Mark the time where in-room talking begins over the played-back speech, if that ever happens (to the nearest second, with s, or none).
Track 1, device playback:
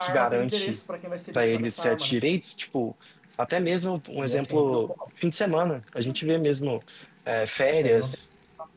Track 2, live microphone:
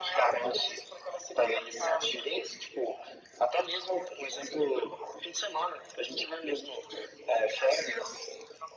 none